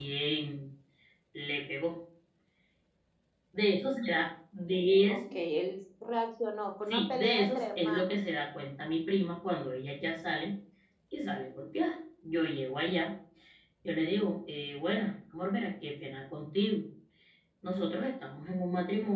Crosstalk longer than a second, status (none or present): present